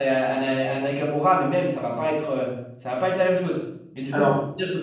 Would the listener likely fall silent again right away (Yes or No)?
Yes